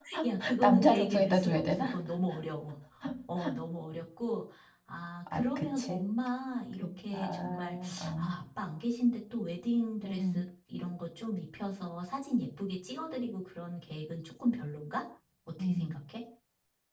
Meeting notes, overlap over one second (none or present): present